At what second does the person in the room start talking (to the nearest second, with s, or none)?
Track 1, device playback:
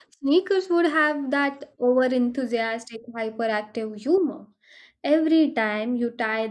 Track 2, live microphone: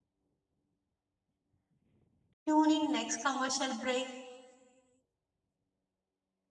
2 s